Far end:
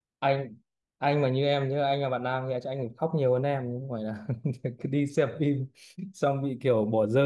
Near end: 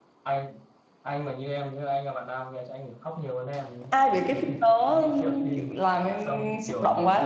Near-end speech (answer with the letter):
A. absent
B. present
B